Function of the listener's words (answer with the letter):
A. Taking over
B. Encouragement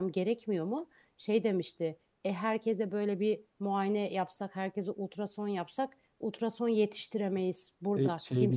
A